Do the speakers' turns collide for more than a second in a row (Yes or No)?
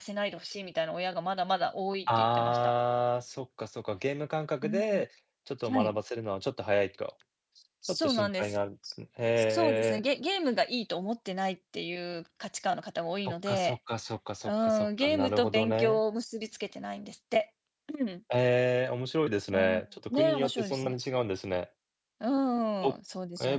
Yes